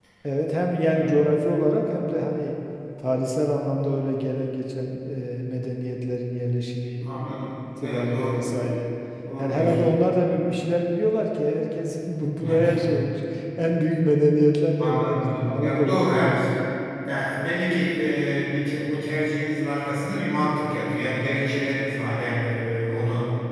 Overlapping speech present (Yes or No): Yes